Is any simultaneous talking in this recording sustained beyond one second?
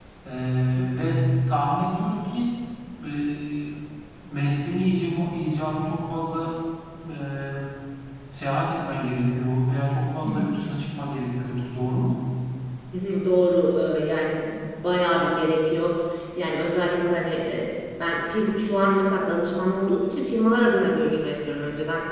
No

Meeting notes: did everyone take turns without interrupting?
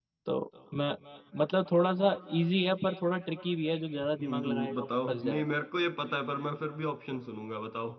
No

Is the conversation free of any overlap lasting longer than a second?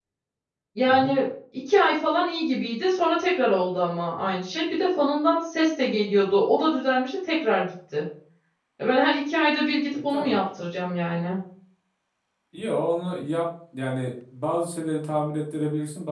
Yes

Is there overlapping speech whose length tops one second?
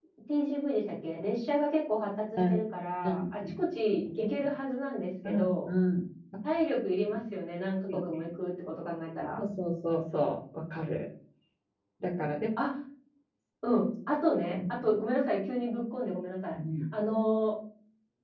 No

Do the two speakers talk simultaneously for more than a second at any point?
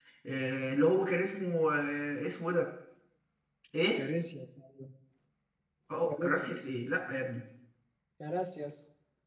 No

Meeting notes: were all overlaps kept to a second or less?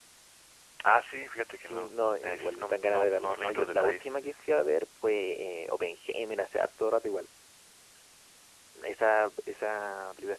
No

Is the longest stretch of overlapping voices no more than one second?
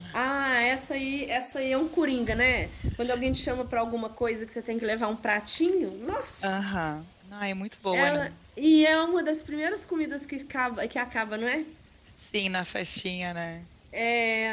Yes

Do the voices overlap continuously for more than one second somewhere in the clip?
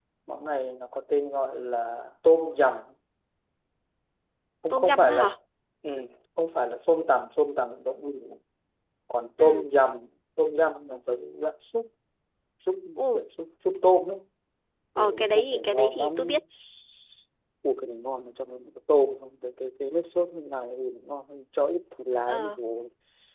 Yes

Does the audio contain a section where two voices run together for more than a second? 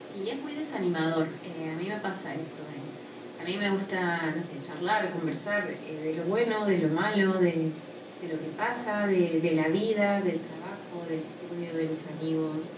No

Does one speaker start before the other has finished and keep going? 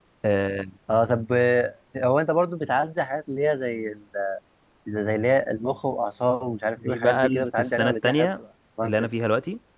Yes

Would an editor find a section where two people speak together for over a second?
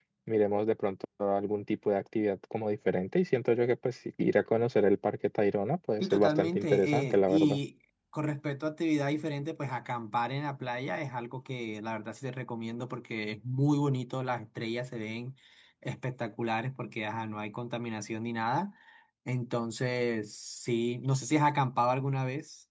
Yes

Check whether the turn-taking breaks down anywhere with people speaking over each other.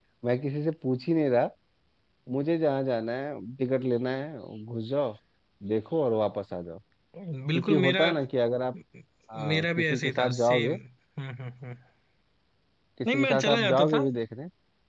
Yes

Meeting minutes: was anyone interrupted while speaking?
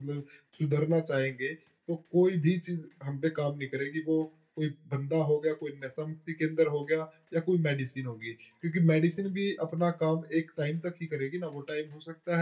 No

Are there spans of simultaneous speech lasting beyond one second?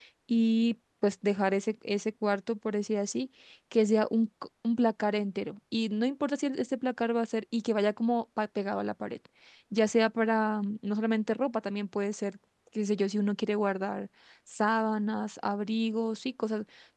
No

